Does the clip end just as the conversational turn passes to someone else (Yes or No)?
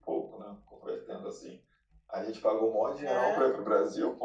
No